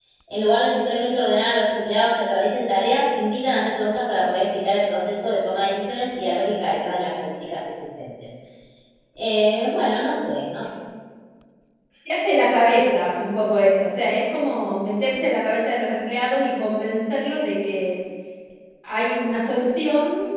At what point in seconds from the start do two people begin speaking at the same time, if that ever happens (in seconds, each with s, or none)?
none